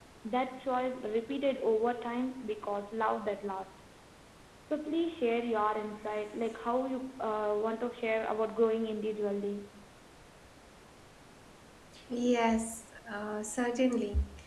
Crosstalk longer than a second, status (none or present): none